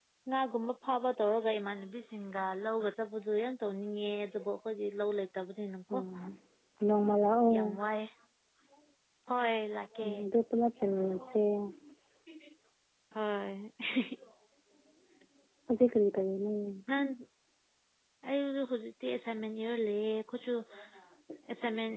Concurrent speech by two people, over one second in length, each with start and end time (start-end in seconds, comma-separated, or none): none